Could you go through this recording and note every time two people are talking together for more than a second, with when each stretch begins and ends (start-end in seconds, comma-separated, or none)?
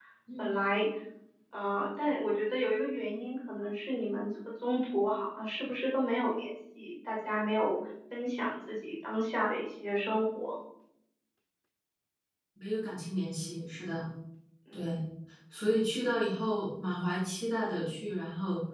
none